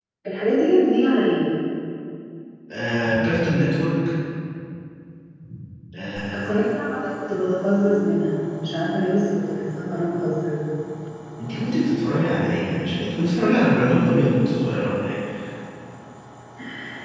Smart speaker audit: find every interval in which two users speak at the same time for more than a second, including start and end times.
none

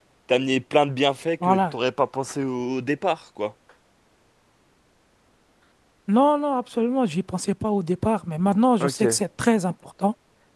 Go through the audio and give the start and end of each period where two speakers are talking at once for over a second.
none

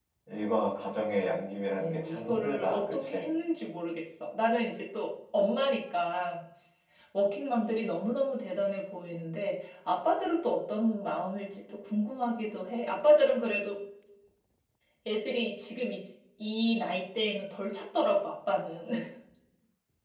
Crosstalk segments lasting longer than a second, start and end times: 1.8-3.2

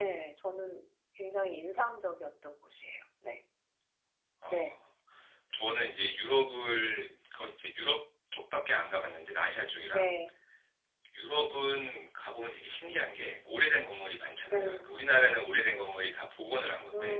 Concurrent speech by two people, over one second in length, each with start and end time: none

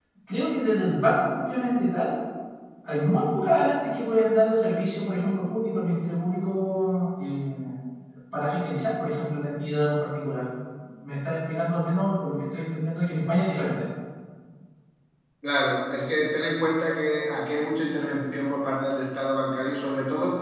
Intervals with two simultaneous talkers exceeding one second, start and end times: none

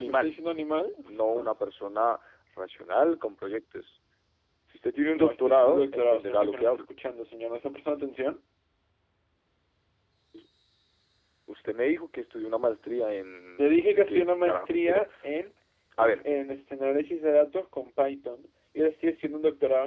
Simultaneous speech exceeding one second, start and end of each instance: 5.1-6.8, 13.6-15.0

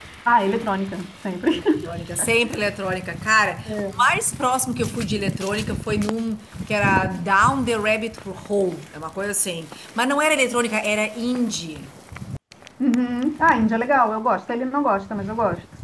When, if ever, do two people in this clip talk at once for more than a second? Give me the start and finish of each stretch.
none

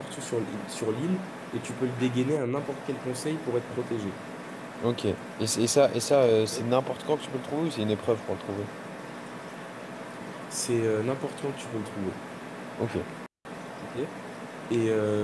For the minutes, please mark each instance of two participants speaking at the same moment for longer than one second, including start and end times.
none

